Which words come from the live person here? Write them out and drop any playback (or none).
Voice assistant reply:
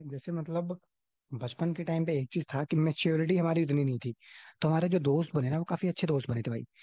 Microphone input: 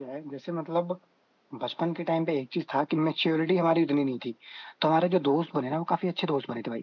none